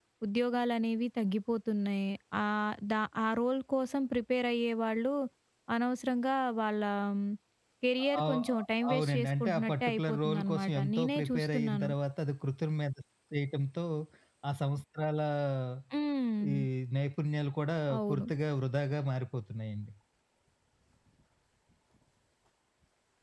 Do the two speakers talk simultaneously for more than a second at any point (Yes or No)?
Yes